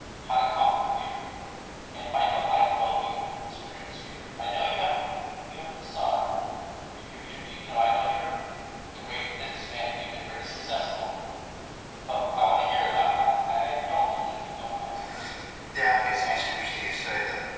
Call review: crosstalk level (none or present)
present